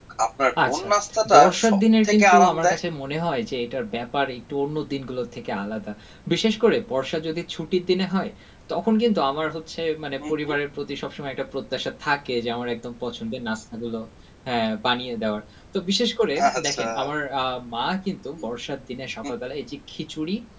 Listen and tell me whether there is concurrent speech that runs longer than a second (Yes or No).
Yes